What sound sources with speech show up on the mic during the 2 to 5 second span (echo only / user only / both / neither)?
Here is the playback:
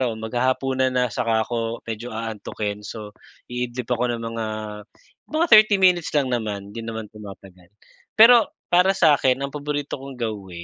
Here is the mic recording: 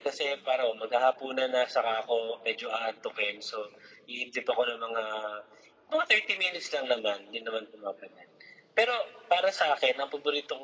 echo only